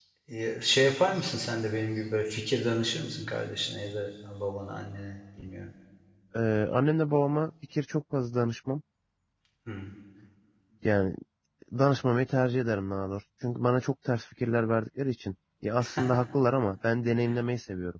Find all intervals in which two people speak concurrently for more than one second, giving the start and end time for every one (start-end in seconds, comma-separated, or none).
none